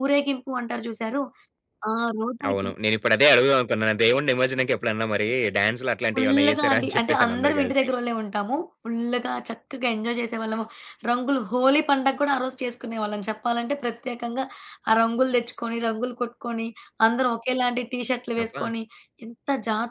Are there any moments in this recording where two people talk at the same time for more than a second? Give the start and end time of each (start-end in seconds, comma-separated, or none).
6.1-7.9